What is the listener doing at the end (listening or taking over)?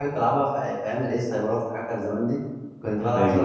listening